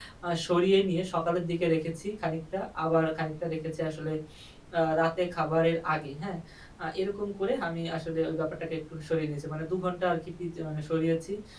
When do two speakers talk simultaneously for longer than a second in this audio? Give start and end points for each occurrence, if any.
none

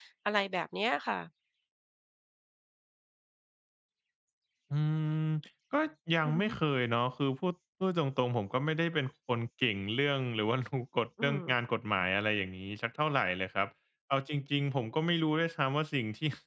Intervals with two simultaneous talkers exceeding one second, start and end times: none

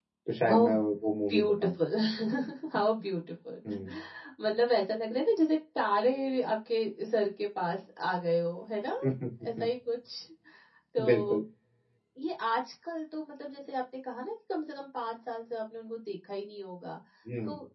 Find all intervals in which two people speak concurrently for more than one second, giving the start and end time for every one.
none

